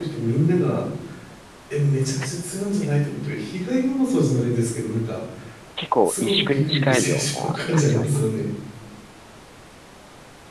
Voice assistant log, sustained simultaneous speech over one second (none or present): present